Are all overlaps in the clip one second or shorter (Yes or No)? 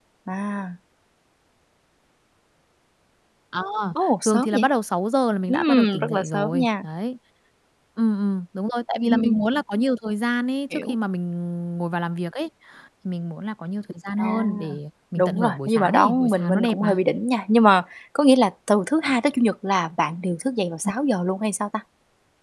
No